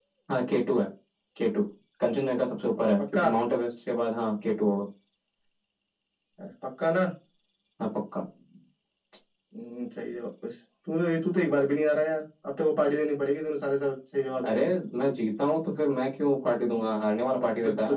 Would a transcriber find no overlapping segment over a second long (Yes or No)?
Yes